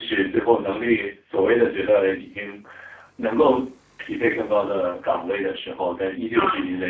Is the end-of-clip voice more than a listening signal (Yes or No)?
No